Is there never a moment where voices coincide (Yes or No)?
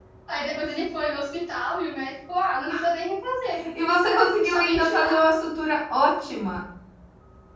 No